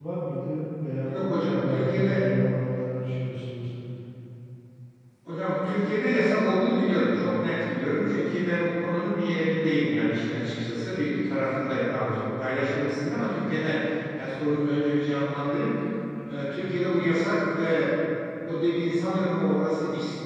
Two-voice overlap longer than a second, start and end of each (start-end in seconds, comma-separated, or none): 1.1-2.3